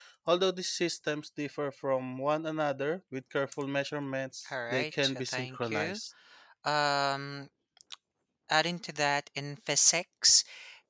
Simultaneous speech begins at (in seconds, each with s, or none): 4.5 s